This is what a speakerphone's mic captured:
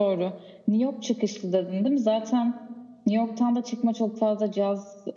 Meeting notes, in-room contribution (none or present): none